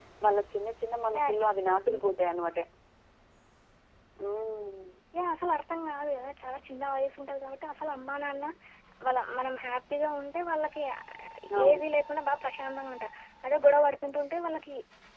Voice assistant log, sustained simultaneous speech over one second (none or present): none